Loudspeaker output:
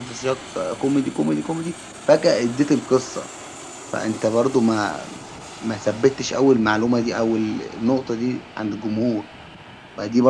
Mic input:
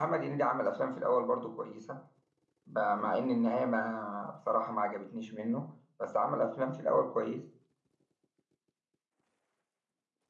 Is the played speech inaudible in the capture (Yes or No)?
Yes